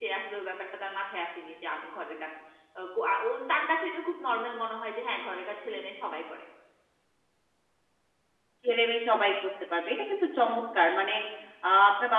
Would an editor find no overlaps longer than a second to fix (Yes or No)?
Yes